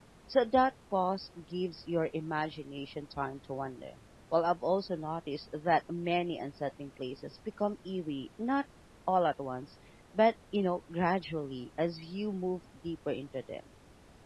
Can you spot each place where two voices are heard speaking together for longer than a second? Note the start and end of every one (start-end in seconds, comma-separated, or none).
none